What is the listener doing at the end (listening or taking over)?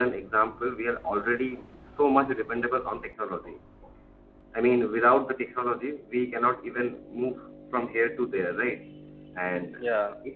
listening